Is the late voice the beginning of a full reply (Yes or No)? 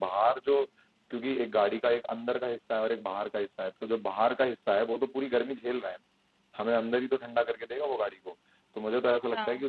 No